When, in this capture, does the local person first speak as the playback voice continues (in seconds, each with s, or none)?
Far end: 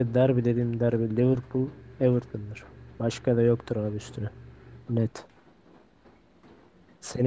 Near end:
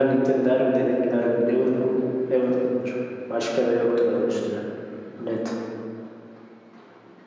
none